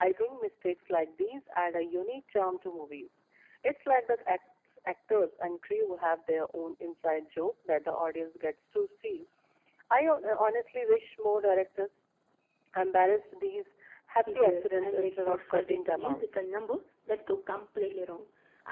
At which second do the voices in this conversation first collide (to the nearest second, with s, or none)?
14 s